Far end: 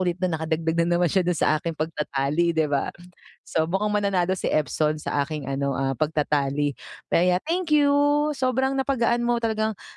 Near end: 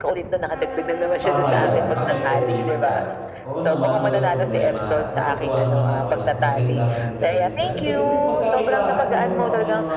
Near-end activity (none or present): present